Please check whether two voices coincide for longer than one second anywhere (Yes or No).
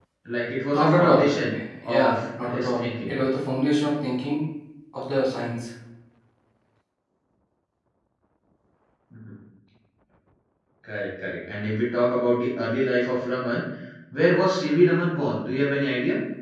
Yes